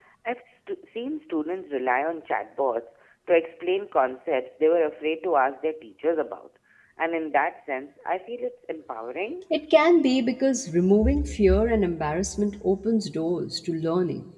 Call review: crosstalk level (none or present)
none